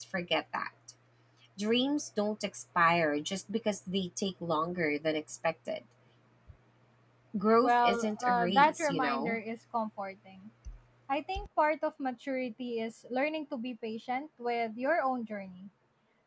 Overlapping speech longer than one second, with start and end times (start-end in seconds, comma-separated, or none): 7.6-9.4